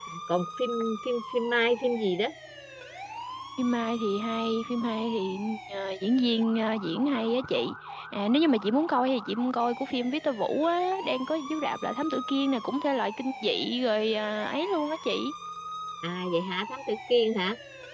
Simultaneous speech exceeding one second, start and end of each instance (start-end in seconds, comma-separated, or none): none